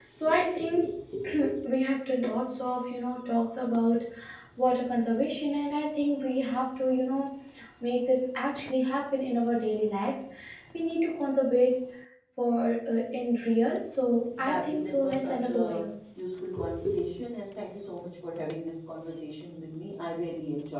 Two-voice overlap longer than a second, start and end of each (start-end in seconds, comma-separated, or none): 14.4-15.8